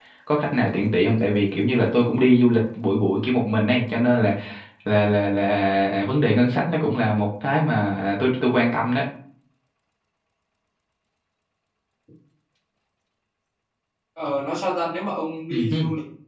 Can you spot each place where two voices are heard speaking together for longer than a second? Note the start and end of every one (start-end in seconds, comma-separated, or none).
none